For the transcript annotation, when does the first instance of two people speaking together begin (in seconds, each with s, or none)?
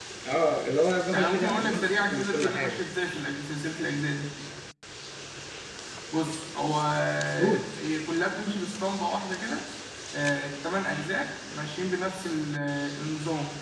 1.1 s